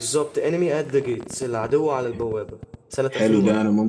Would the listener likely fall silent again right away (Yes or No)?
No